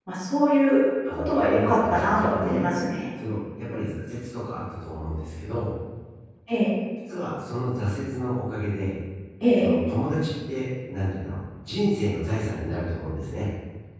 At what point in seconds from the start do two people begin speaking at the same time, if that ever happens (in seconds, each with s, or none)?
1.1 s